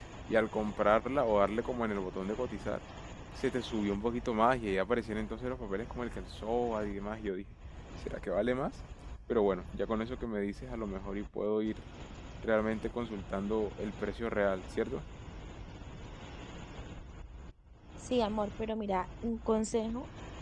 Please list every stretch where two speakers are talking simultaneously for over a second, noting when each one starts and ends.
none

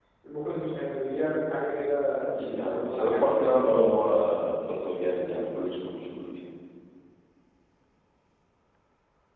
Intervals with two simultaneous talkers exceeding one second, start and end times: 2.2-3.6

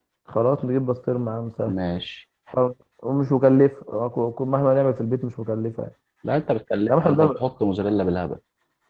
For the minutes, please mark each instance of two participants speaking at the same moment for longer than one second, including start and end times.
none

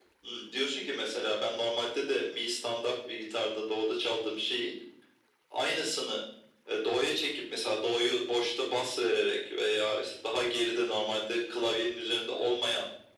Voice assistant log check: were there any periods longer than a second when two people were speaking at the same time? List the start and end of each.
none

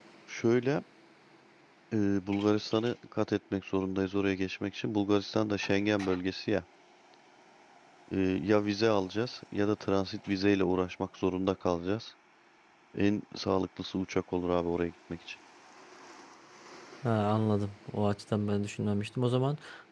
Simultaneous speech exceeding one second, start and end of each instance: none

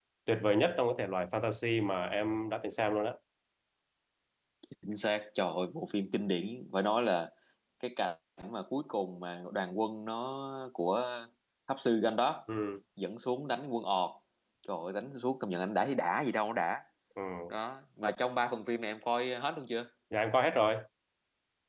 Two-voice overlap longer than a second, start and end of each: none

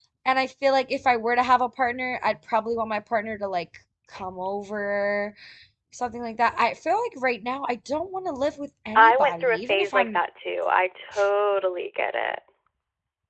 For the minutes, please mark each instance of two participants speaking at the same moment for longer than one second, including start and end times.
9.0-10.2

